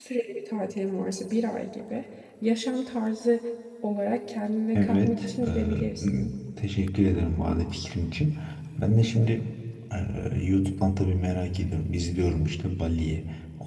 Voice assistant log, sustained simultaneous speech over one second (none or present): present